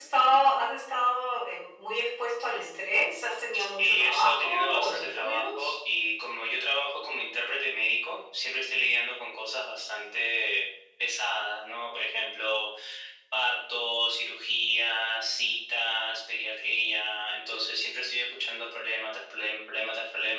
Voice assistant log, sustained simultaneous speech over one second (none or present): present